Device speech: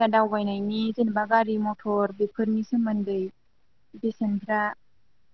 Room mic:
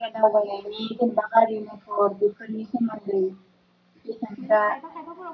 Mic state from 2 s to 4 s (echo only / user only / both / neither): echo only